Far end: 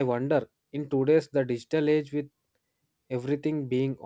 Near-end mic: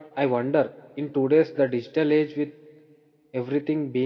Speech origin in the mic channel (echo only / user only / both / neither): echo only